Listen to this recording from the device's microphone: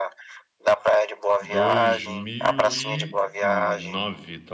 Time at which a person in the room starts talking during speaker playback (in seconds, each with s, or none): 1.4 s